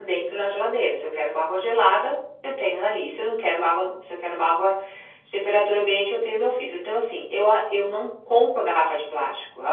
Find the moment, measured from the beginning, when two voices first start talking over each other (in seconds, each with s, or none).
none